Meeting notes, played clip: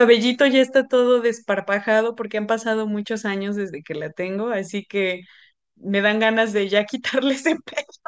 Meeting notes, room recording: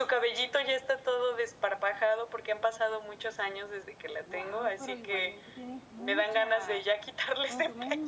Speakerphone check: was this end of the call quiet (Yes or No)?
No